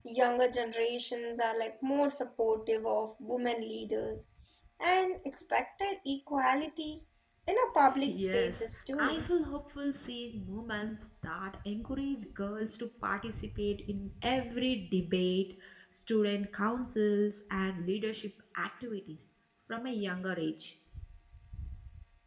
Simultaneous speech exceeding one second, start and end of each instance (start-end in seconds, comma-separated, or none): 8.0-9.3